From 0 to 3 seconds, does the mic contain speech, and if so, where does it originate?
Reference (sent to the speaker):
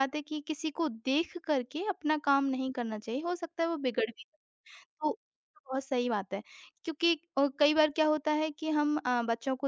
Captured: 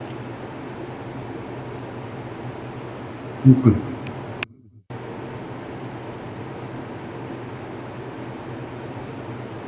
neither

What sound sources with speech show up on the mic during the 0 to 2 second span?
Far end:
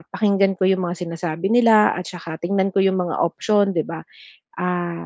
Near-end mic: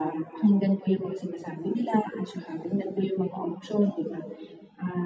echo only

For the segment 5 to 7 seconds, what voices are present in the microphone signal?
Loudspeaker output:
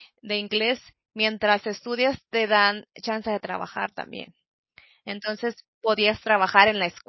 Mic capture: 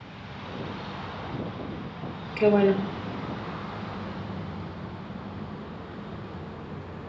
neither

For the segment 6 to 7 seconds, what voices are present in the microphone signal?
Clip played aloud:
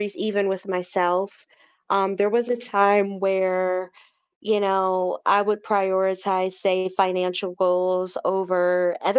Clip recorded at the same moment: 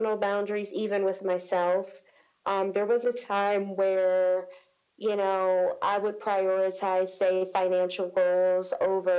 echo only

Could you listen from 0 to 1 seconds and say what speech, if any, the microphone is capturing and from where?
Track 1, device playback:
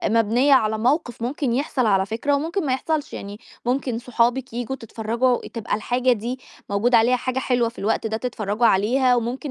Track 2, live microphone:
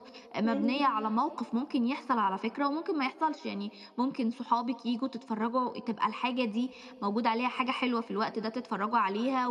both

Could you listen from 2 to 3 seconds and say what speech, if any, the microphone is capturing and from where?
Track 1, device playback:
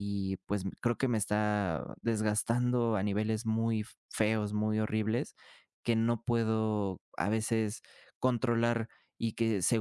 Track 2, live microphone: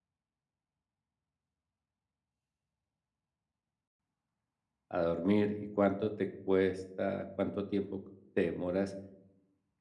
neither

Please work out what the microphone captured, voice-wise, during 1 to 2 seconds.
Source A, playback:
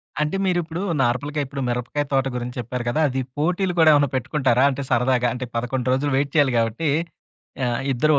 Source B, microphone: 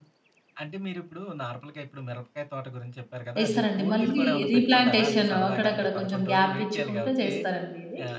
echo only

